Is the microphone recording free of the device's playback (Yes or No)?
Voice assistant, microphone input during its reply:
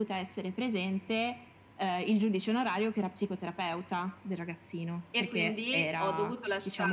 No